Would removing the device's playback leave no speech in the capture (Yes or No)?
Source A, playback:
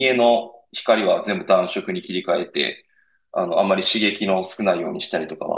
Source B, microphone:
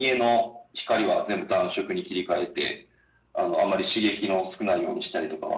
Yes